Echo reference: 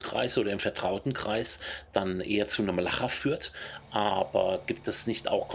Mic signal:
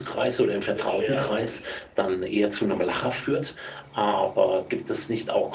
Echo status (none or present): present